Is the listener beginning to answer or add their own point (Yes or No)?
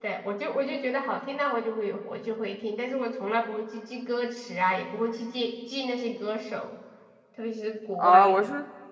Yes